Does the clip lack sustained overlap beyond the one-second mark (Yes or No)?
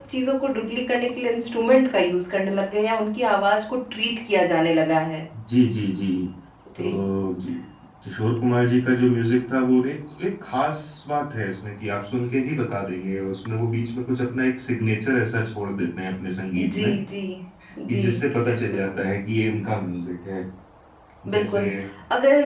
Yes